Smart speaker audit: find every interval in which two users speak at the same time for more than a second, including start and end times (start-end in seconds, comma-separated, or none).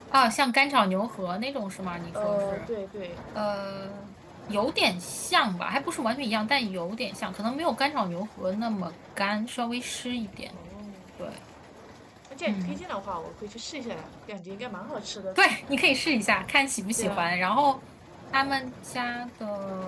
none